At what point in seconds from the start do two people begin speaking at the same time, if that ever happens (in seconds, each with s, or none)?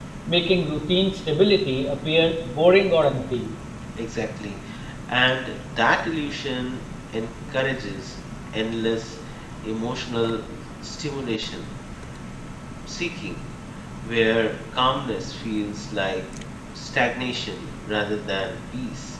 none